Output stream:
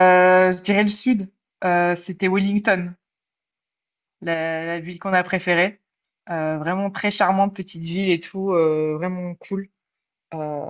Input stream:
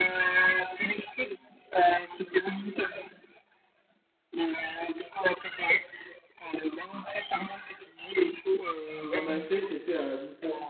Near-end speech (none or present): present